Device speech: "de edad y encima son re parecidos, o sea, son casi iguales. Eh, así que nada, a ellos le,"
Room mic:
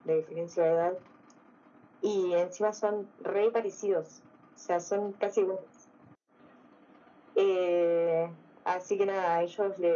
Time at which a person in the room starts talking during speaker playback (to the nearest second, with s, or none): none